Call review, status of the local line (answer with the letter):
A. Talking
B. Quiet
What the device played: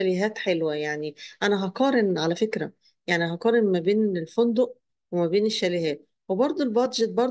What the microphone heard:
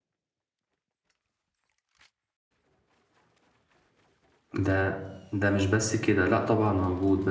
A